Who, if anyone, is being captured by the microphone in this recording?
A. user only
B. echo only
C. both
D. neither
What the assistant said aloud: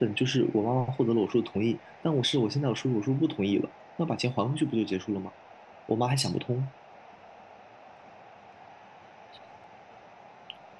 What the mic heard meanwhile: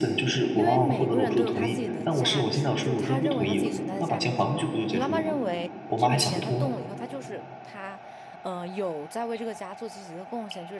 C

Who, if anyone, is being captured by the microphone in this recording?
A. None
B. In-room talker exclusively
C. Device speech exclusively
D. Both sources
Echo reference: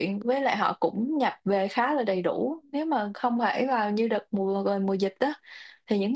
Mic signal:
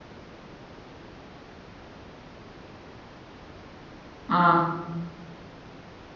B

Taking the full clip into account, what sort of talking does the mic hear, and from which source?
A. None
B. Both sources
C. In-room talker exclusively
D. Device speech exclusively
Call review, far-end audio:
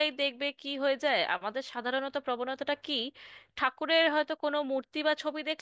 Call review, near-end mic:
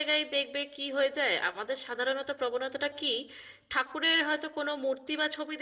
D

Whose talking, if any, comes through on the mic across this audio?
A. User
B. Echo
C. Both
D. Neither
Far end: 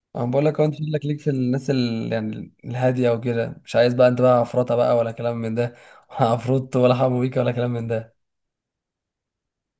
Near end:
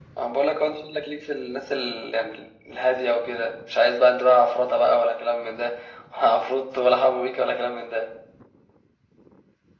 B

